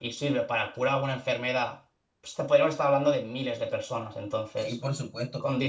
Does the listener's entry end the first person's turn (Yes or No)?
Yes